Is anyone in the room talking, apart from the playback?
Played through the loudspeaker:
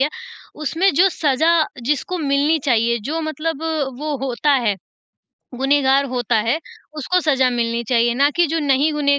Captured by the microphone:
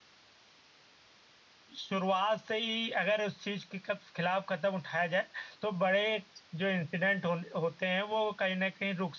Yes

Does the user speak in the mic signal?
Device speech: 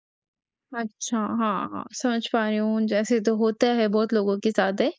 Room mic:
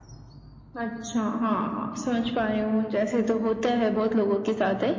No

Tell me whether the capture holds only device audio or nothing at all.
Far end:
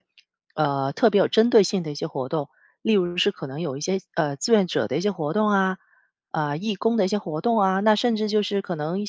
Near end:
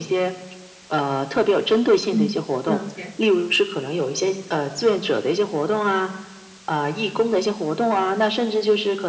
No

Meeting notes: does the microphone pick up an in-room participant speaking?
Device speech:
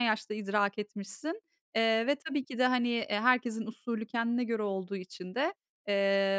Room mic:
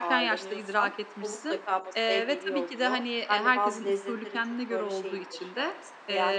Yes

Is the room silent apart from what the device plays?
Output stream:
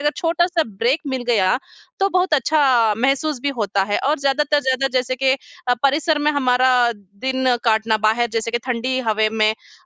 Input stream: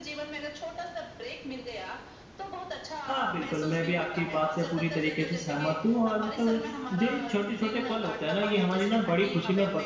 No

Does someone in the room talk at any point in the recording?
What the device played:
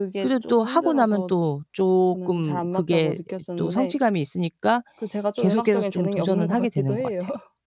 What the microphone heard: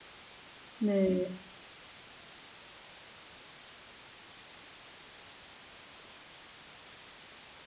Yes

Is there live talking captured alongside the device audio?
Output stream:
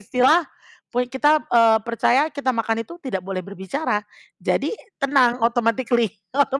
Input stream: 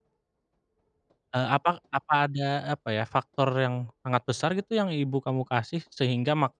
Yes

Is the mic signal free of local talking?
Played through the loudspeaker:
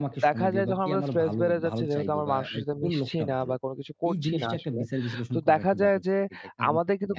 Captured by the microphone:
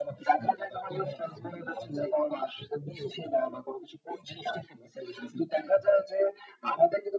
Yes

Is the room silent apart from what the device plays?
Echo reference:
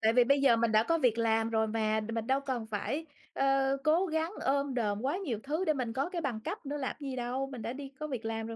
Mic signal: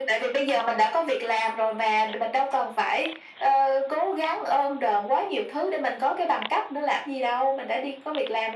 Yes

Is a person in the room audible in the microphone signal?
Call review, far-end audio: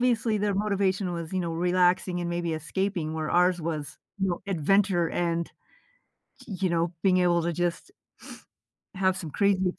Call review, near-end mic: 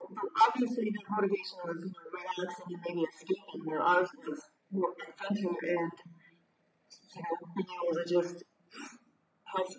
No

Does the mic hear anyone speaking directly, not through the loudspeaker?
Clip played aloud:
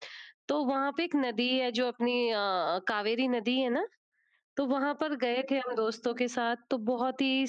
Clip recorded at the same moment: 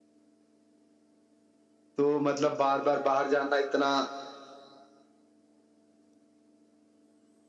Yes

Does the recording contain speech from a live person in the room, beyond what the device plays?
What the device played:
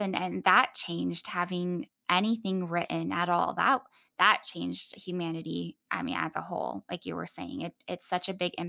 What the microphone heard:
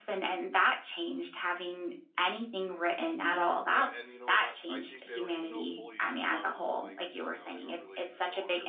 Yes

